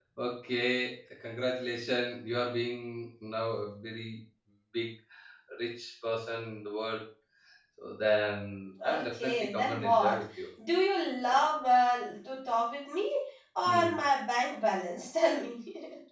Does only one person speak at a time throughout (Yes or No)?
No